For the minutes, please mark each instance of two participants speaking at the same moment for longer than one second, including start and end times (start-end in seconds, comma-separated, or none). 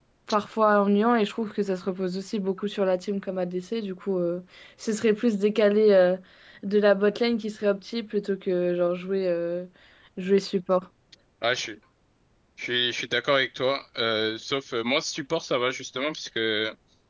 none